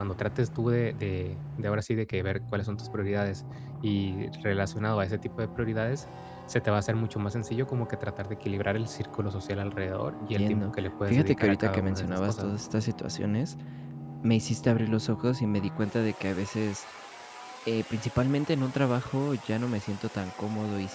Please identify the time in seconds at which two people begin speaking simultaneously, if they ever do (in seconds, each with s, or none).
10.2 s